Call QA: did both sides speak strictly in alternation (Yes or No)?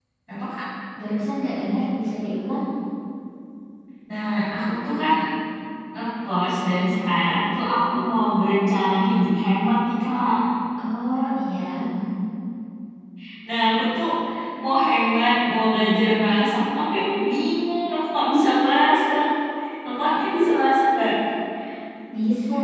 Yes